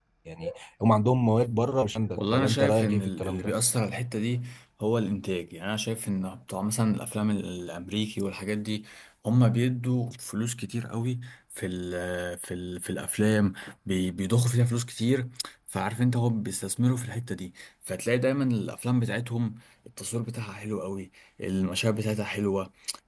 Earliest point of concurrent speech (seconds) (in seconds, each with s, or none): 2.2 s